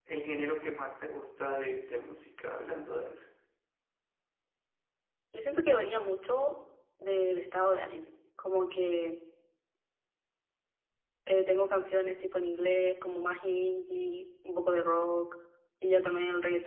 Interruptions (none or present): none